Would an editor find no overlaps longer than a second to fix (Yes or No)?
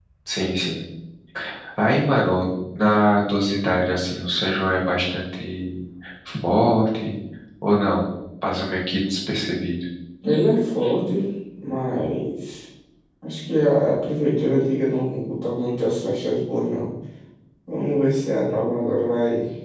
Yes